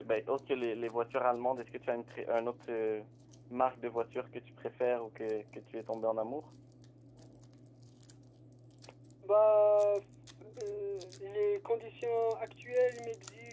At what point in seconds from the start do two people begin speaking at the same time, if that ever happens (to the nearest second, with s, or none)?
none